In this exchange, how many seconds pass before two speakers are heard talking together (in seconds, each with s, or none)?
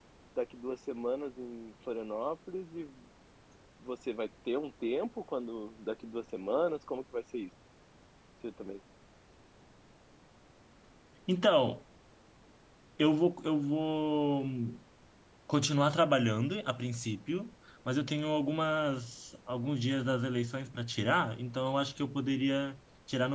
none